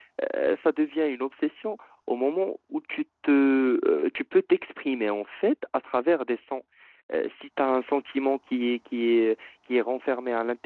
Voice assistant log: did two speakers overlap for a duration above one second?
No

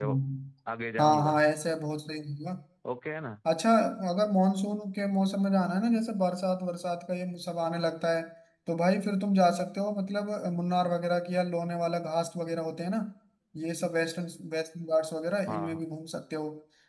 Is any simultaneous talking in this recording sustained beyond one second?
No

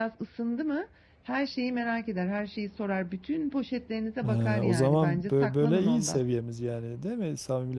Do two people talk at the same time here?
Yes, from 4.2 s

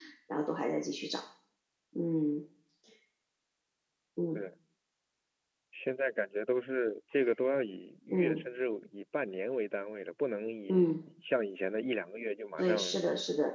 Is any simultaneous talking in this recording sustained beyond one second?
No

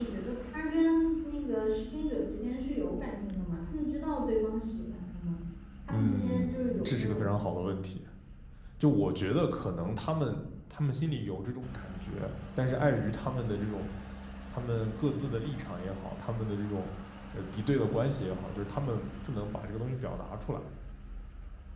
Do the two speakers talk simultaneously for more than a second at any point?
Yes, from 5.9 s

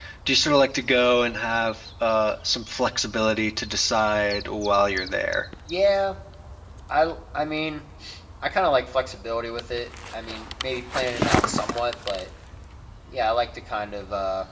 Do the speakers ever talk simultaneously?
No

